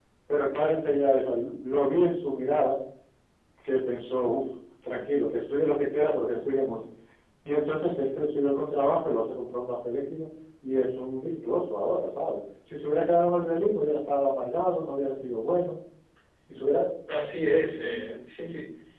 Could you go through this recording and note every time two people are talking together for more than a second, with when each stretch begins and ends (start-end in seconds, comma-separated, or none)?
none